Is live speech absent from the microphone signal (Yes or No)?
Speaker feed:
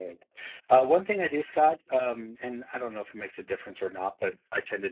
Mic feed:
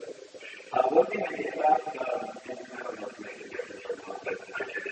Yes